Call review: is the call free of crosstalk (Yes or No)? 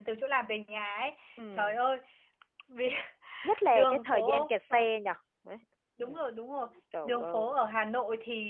No